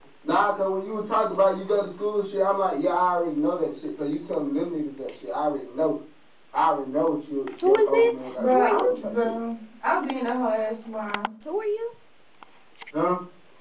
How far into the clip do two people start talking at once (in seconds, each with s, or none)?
7.6 s